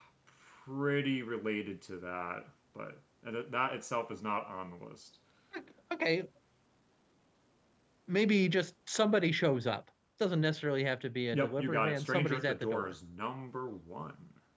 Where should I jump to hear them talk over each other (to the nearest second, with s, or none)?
11 s